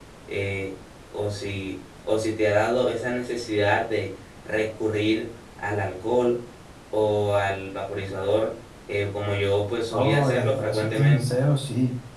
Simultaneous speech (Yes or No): Yes